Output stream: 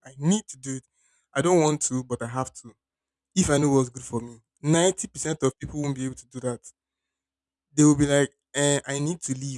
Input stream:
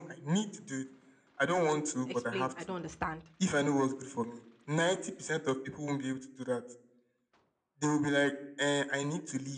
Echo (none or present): present